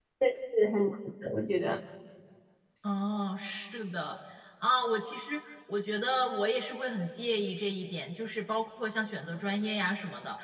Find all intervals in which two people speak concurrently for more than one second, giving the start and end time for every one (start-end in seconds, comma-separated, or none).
none